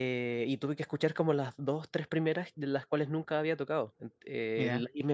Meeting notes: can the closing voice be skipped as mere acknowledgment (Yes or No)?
Yes